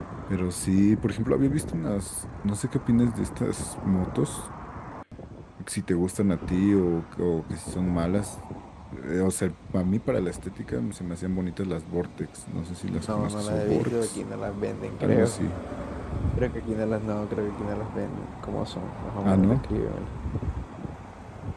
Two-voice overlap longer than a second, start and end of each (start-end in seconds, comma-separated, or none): 12.9-14.2